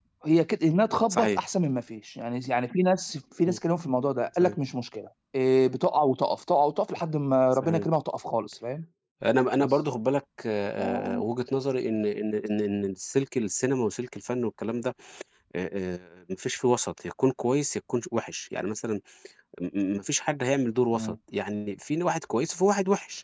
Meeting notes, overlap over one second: none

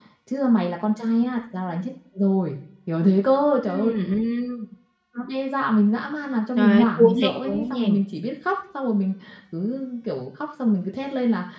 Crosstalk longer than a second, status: present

